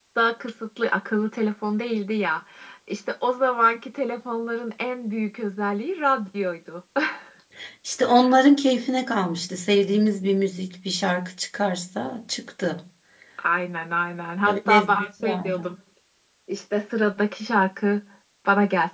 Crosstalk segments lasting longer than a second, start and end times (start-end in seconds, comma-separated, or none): 14.5-15.7